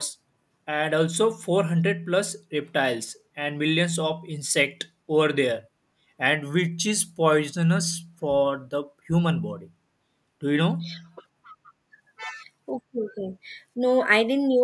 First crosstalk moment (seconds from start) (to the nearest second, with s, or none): none